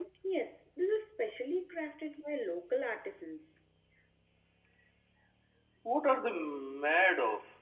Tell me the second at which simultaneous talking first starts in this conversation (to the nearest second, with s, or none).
none